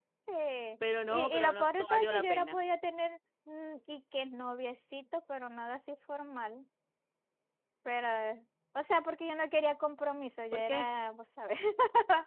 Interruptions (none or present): present